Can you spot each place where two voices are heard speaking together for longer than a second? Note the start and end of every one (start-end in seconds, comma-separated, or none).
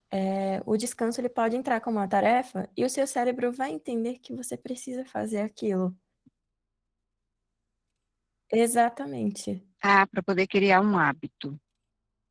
none